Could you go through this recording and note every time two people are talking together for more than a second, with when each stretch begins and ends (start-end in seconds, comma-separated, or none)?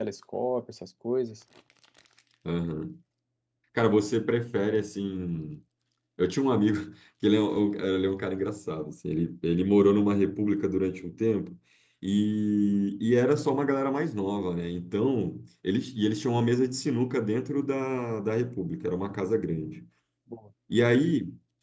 none